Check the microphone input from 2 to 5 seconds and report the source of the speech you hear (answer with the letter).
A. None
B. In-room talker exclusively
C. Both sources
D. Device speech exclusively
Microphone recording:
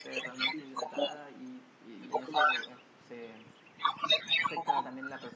C